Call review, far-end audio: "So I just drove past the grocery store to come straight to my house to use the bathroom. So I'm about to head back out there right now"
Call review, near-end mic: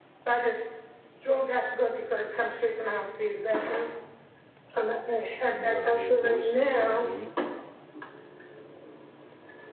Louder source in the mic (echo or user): echo